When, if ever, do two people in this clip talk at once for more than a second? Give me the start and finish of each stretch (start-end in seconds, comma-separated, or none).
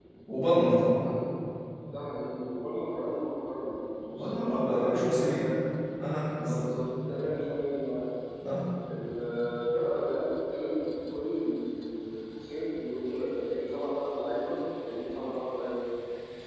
4.1-5.5